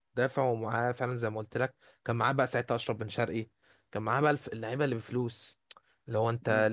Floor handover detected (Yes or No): No